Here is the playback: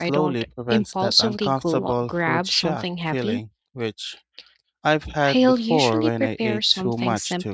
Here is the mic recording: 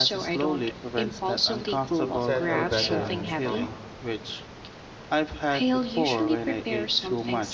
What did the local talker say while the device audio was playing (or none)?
settle better in my stomach.